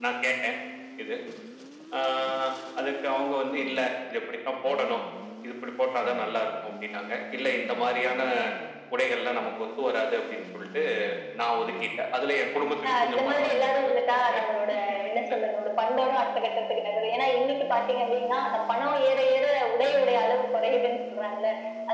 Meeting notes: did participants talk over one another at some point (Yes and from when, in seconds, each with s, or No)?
Yes, from 12.8 s